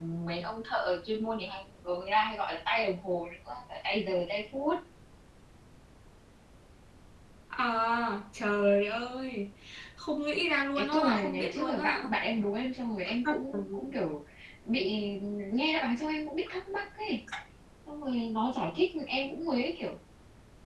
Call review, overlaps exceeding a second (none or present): present